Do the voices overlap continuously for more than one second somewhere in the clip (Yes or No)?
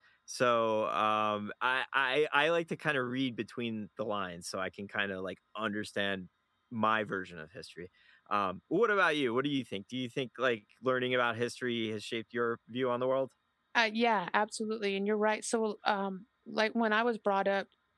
No